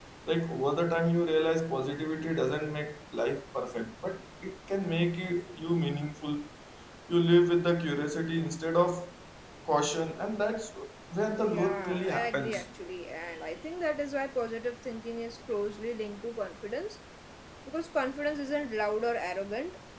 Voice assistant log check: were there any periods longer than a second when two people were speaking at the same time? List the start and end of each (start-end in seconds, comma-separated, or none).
11.4-12.7